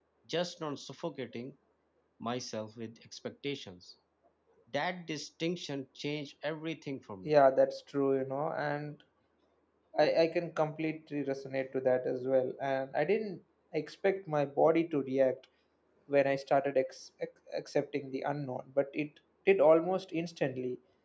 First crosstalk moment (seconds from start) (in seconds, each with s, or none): none